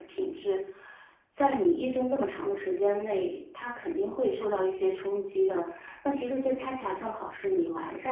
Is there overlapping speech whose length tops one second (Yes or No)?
No